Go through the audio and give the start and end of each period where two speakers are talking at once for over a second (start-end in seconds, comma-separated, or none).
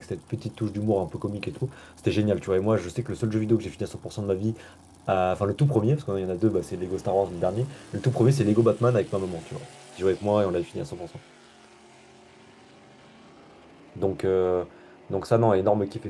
none